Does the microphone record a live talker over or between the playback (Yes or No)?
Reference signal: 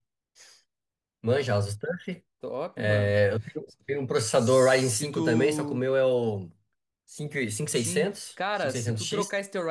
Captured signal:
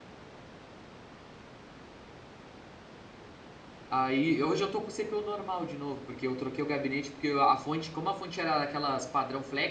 Yes